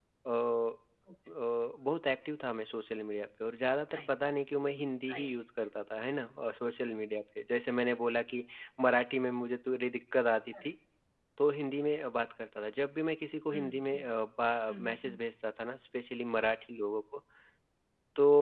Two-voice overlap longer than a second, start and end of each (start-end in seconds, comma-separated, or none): none